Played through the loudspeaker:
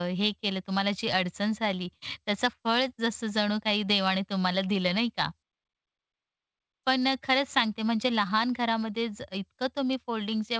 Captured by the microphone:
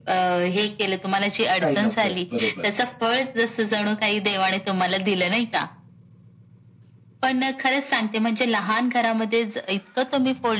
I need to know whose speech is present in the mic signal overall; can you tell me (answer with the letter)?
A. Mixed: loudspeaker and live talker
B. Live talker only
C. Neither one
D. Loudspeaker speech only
A